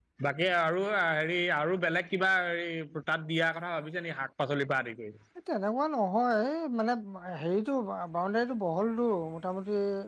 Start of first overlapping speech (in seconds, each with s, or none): none